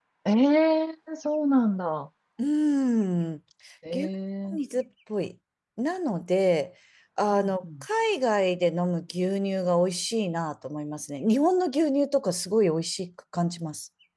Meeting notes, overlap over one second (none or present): none